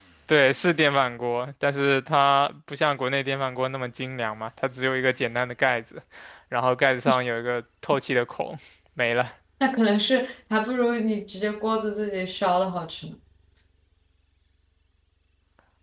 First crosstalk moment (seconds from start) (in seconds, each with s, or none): none